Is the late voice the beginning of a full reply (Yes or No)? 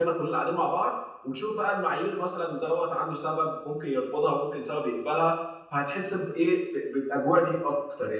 Yes